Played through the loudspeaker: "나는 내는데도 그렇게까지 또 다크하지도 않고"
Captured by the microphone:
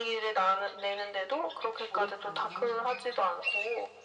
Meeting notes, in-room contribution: present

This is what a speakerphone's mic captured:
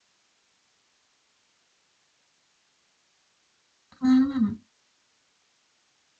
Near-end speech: present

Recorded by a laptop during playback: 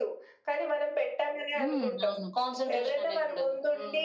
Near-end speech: present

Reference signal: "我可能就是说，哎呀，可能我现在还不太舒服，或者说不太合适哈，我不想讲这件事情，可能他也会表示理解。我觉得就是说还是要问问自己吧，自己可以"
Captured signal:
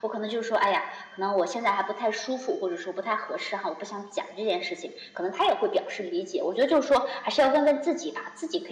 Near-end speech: none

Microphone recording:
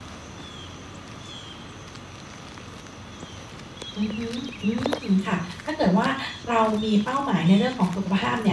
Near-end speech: present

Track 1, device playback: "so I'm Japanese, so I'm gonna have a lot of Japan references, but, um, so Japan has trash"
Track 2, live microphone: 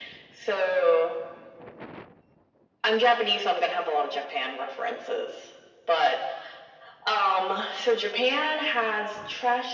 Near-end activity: none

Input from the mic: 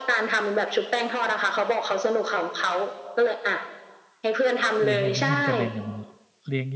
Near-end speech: present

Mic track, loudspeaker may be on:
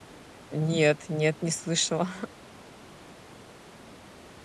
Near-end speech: present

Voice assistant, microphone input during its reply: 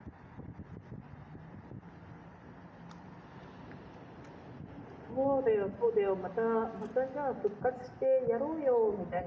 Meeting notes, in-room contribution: present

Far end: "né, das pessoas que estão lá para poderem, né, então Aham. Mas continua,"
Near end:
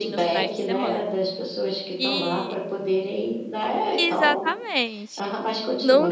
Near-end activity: present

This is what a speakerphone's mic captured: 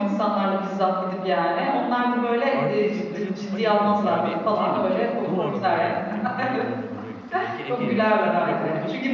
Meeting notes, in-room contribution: present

